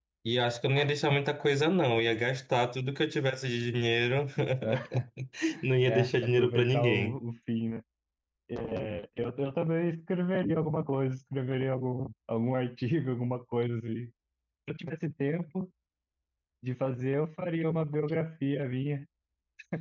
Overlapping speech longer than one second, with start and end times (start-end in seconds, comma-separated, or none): 5.8-7.2